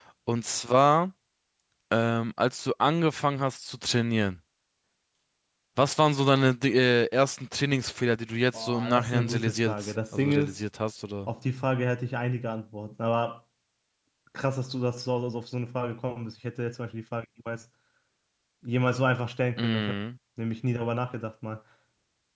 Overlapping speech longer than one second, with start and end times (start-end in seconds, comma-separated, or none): 8.5-10.6